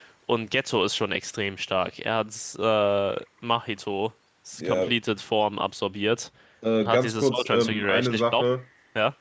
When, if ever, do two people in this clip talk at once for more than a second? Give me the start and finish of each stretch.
6.8-8.4

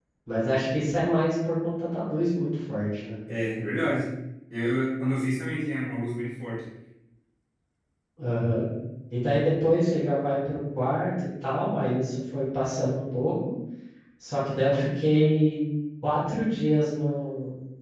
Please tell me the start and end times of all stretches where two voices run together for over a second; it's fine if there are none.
none

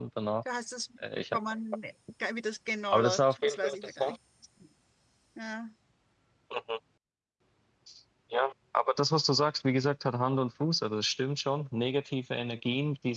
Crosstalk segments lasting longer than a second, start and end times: 2.9-4.2

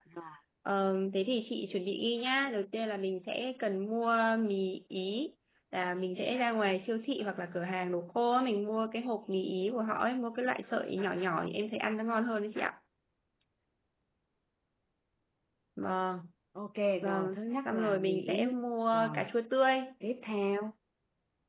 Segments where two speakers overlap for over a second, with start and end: 17.0-18.5

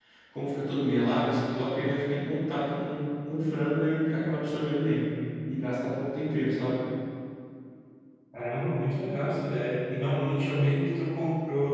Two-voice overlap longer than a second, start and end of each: none

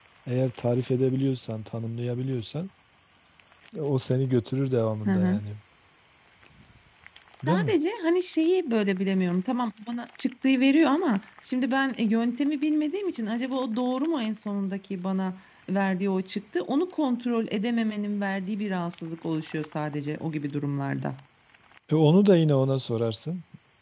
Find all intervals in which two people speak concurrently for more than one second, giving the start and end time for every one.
none

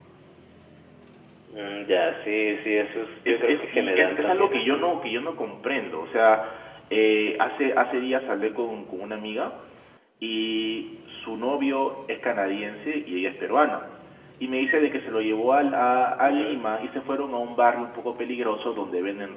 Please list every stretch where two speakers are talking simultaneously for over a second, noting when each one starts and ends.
3.3-4.8

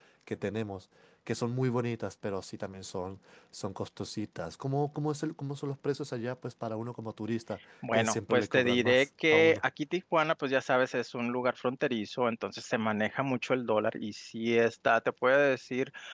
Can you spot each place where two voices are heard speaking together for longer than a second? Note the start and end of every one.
7.9-9.6

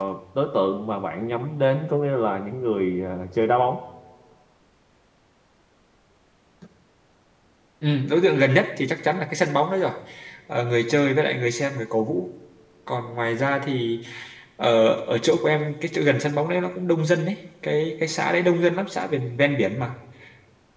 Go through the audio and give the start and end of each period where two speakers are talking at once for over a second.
none

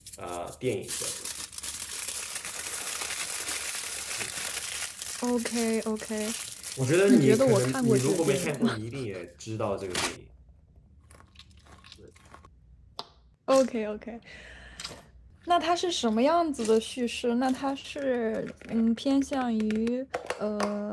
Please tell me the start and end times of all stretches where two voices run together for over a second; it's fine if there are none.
7.1-8.7

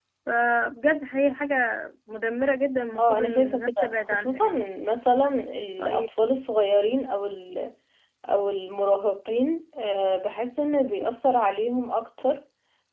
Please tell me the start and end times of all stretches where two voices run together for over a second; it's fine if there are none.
2.9-4.5

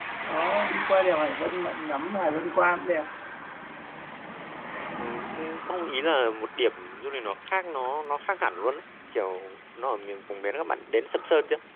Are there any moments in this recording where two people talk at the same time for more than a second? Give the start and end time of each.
none

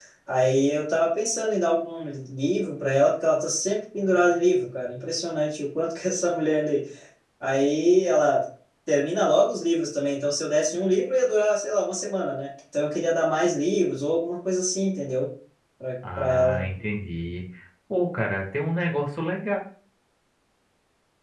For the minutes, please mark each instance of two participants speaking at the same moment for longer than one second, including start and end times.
none

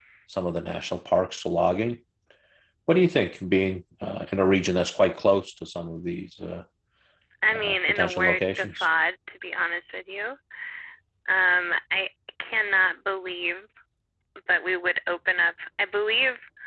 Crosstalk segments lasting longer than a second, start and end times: 7.5-8.9

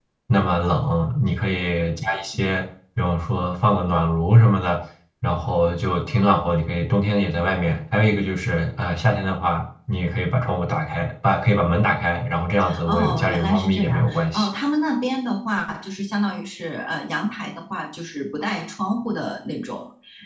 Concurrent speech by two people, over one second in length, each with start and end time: 12.9-14.5

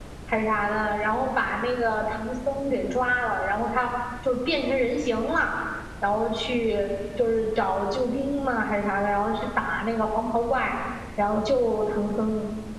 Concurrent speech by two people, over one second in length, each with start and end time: none

